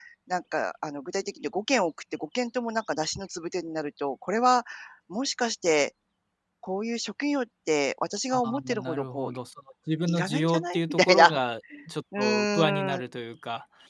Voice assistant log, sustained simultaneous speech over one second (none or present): present